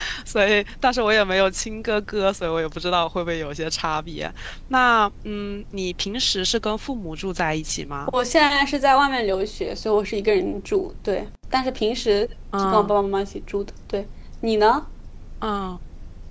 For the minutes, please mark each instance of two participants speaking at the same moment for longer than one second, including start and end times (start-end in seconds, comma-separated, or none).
none